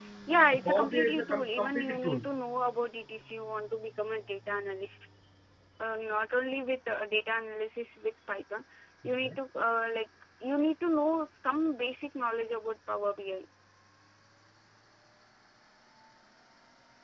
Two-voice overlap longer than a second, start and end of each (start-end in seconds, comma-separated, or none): 0.5-2.2